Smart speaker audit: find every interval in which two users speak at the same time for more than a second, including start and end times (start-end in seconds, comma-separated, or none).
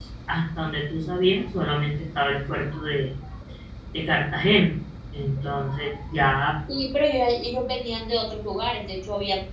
none